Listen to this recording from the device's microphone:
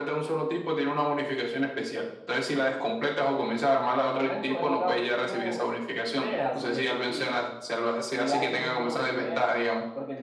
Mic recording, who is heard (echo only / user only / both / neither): echo only